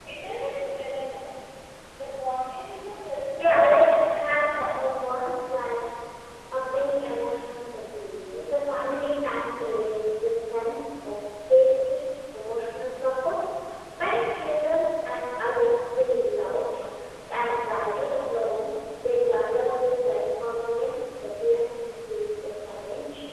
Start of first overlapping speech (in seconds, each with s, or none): 3.4 s